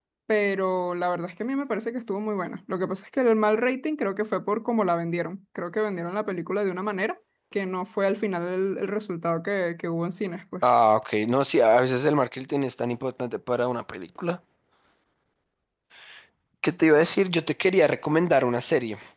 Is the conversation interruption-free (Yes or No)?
Yes